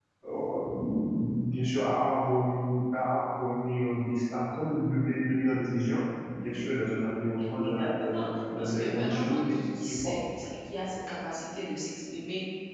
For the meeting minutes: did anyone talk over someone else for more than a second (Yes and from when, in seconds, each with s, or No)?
Yes, from 7.6 s